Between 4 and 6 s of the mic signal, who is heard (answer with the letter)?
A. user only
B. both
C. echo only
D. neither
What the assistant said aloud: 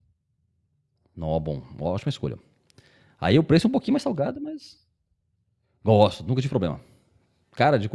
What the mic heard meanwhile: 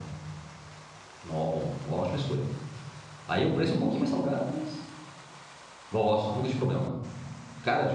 C